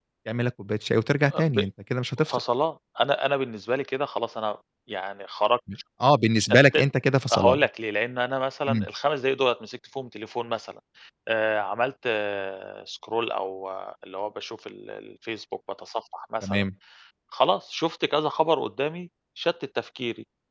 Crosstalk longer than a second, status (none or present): none